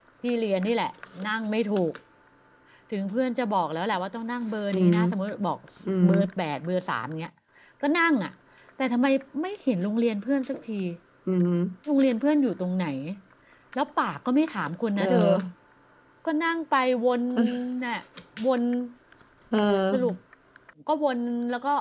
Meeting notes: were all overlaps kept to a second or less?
Yes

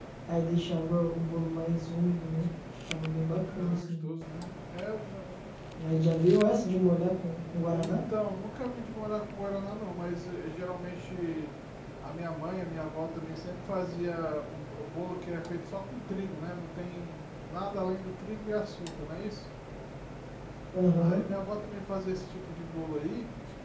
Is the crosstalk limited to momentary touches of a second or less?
Yes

